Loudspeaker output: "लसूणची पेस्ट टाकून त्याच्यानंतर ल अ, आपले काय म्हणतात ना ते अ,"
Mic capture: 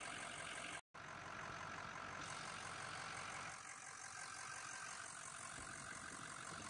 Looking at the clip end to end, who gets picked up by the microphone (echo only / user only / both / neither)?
neither